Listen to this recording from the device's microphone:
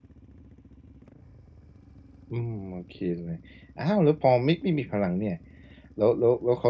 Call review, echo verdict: none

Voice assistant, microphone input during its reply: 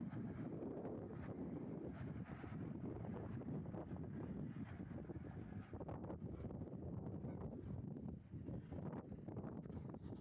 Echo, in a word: none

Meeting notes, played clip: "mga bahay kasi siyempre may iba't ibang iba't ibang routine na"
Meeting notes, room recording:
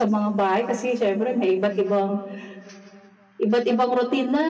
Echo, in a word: present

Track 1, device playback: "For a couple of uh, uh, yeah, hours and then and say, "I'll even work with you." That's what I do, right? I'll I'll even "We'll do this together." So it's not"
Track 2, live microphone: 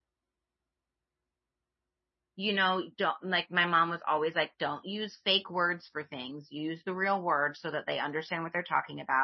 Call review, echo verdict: none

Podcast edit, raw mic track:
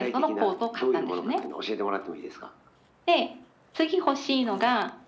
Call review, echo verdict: present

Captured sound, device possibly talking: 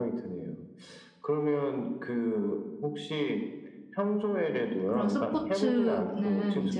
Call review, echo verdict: present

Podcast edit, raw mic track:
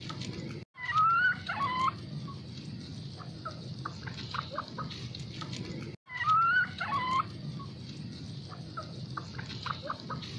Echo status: none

